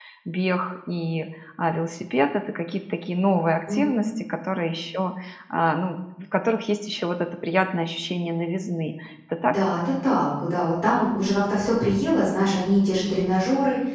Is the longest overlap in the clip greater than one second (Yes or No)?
No